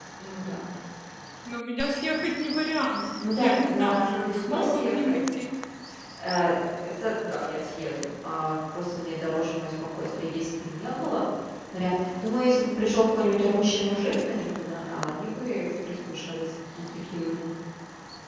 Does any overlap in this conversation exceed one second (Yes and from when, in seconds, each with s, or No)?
Yes, from 3.2 s